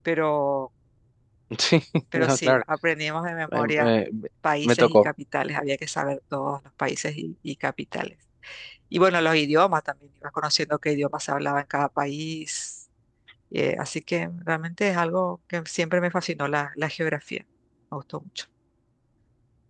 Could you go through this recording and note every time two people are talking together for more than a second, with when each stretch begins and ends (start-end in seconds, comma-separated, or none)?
none